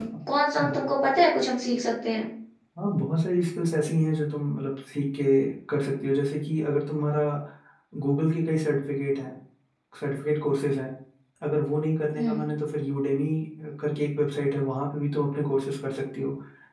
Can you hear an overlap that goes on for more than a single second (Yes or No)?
No